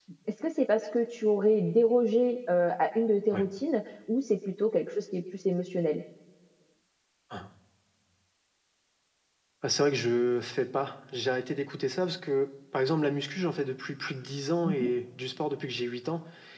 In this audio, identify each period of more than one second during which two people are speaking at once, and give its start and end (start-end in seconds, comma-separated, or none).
none